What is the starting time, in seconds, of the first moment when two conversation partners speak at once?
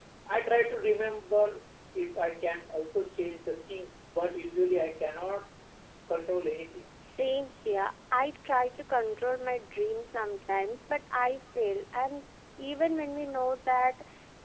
none

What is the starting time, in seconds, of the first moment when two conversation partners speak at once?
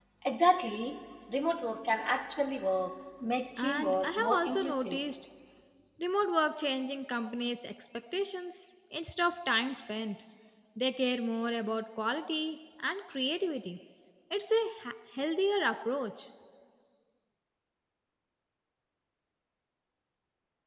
3.6 s

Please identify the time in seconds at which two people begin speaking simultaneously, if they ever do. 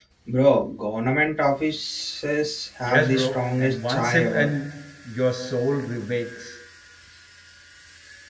2.9 s

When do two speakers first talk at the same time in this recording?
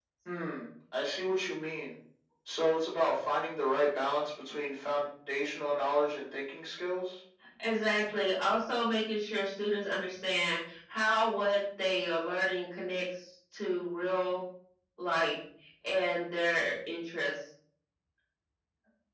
none

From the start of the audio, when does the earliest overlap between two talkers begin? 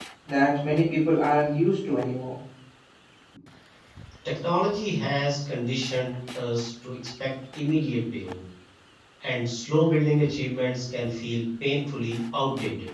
none

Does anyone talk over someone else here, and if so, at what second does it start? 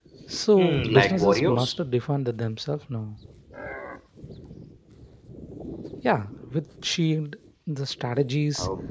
0.6 s

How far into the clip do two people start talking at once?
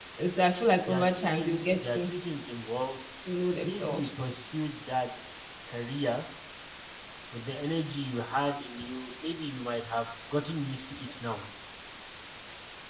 0.9 s

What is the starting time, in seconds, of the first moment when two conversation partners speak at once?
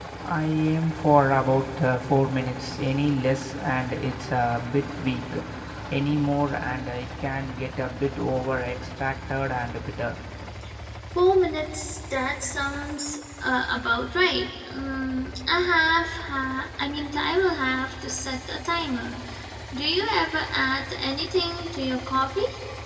none

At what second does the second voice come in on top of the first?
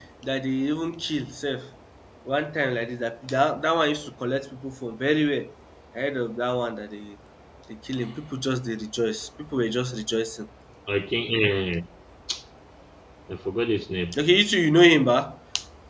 none

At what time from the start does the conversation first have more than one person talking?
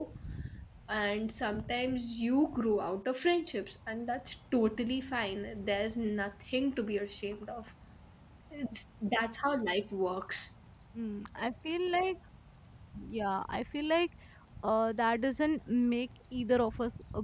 none

